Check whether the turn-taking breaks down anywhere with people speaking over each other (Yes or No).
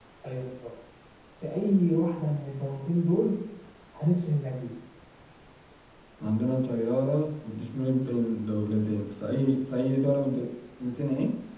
No